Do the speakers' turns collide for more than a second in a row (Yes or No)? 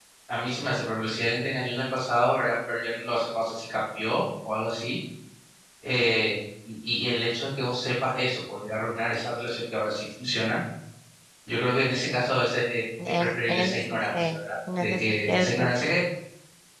Yes